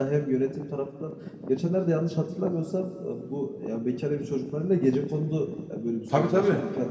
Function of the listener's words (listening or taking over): taking over